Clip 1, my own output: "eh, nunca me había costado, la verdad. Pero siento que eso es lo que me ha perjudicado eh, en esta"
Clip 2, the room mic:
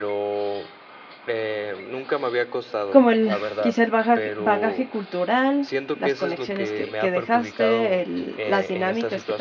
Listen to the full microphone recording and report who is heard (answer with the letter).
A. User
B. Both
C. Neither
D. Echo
B